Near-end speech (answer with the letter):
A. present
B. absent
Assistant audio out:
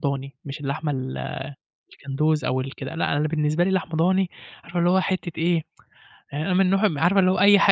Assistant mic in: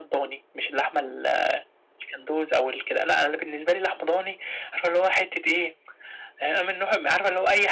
B